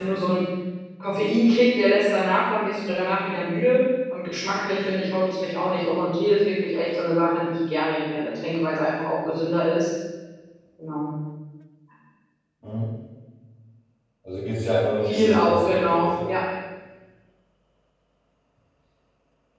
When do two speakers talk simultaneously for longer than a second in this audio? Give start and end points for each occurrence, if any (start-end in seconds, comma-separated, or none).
15.0-16.3